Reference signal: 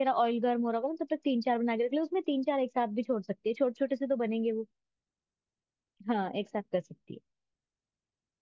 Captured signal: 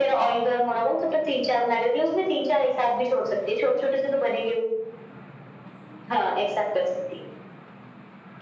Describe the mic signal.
echo only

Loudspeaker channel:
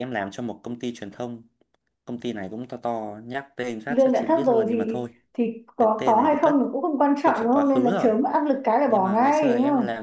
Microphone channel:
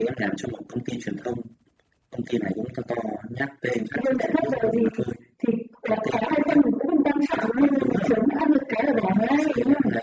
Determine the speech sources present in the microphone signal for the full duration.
echo only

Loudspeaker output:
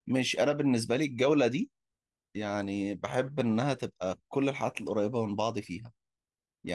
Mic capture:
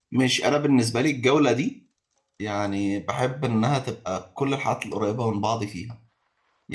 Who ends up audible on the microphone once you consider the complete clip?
echo only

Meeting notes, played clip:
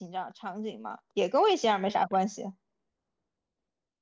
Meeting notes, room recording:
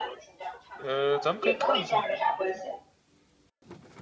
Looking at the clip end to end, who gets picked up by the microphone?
both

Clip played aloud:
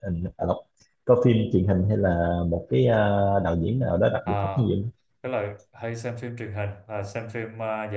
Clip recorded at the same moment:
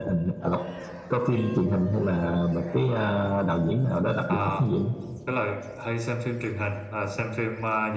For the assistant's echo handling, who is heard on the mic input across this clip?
echo only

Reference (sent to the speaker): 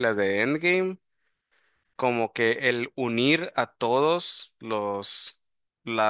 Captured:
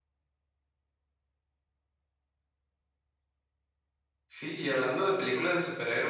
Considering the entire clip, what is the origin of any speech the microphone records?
user only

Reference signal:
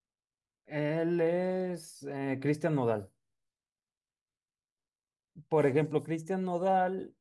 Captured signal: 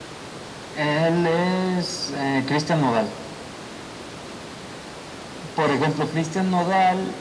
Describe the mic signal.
echo only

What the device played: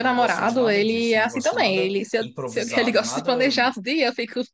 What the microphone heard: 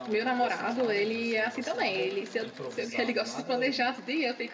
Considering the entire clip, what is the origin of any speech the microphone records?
echo only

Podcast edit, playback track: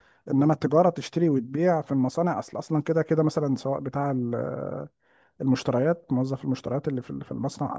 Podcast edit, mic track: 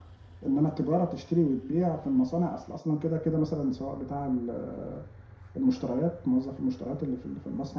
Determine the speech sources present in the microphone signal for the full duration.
echo only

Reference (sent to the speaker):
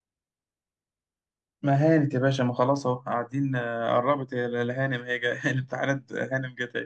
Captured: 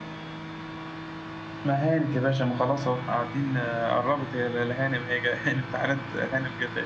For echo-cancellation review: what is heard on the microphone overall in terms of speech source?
echo only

